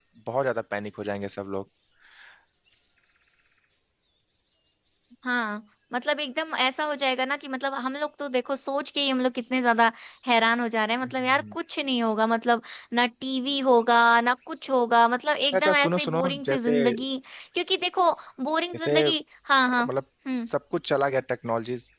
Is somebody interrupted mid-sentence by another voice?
Yes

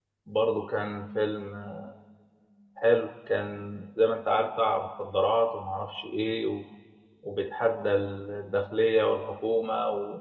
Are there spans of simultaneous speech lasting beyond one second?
No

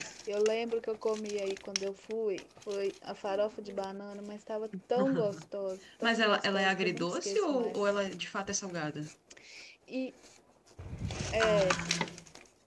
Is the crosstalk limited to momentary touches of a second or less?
No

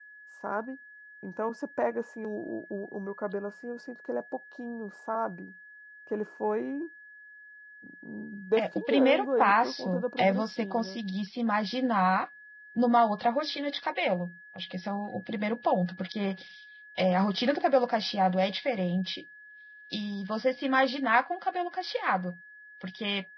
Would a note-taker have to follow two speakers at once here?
Yes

